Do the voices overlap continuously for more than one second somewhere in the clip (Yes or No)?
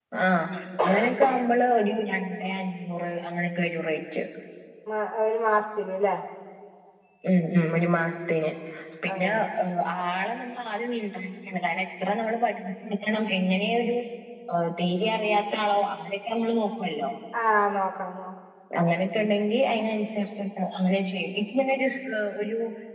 No